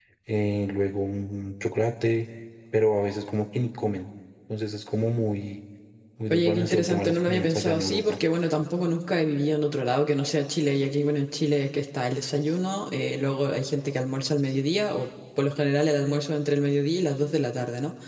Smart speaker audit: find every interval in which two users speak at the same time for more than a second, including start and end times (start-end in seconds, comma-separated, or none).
6.3-8.1